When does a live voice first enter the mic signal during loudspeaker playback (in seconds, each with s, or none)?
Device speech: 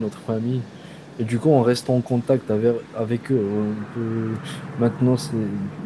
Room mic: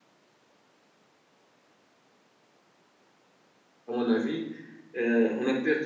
3.9 s